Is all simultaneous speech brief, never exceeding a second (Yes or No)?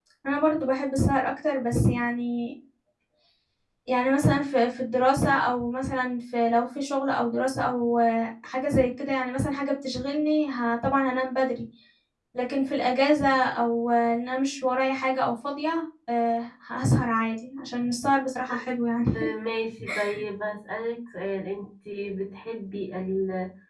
Yes